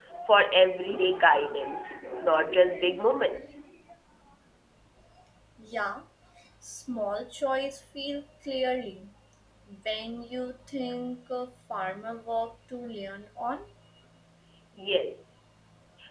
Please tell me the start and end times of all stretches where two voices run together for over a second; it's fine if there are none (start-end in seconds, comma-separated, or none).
none